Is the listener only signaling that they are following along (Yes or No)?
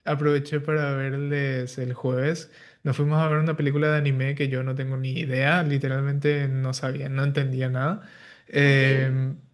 Yes